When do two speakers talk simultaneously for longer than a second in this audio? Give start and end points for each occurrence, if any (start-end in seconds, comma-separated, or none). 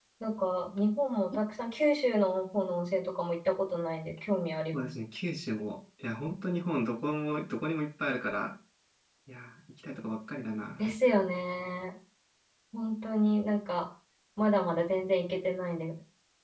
none